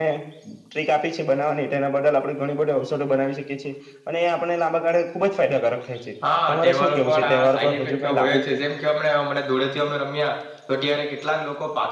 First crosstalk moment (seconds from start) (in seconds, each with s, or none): 6.5 s